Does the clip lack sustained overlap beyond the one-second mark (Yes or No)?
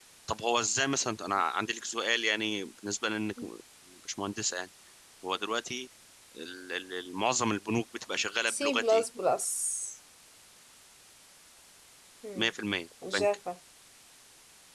Yes